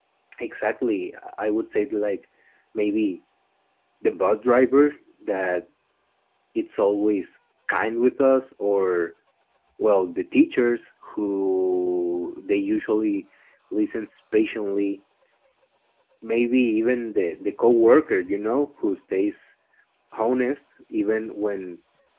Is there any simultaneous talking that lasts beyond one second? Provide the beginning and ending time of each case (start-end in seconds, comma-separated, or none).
none